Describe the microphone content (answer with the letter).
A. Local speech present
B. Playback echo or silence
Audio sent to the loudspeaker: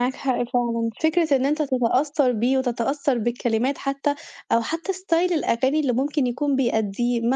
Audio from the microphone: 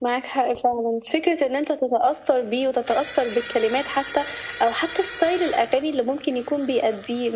B